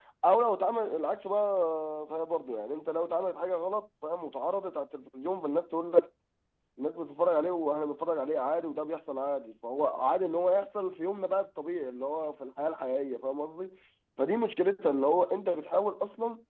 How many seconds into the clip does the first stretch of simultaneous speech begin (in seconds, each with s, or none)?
none